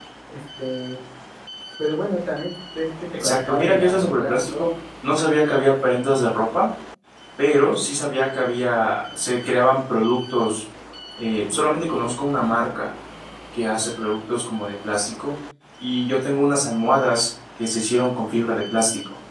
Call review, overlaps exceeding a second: present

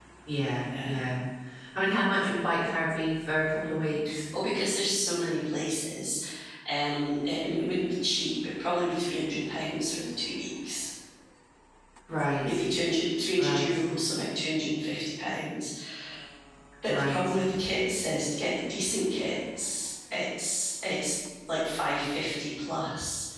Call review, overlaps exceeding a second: none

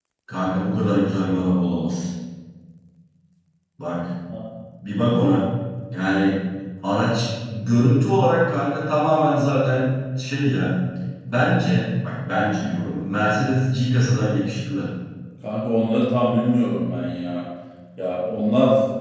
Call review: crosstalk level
none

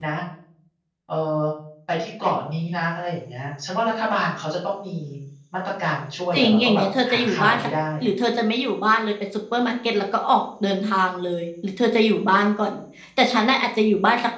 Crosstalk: present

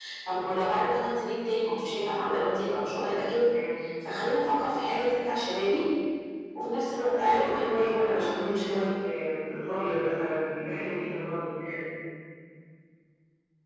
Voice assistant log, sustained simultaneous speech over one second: present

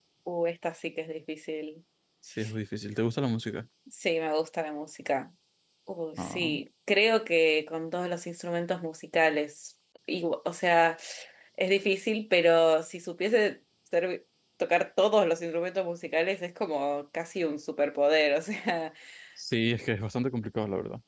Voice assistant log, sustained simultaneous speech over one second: none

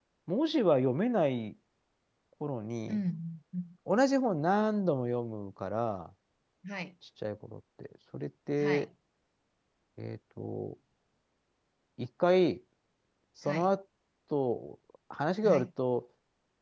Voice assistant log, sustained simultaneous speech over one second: none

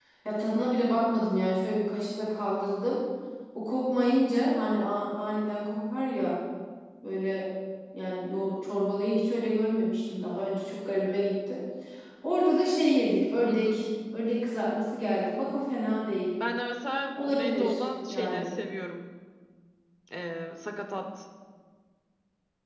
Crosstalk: present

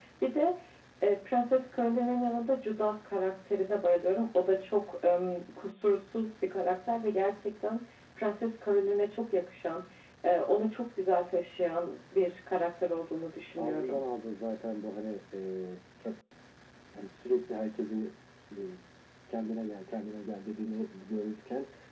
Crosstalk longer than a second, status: none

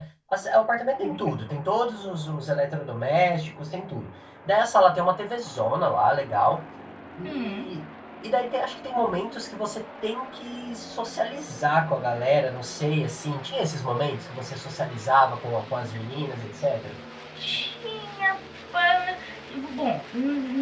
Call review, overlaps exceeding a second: none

